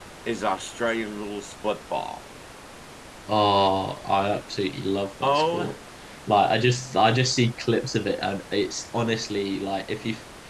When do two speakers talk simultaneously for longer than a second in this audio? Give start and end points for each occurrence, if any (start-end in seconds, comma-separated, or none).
none